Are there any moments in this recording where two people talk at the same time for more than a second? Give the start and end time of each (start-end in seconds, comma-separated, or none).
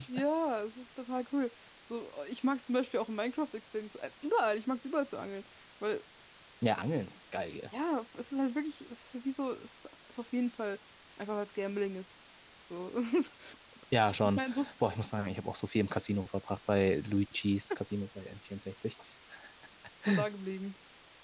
none